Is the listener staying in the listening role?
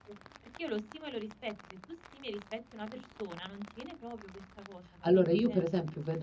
No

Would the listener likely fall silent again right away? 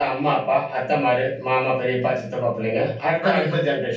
Yes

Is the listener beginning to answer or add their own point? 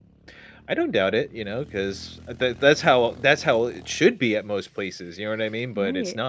Yes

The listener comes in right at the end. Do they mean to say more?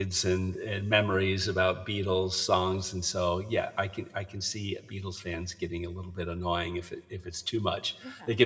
No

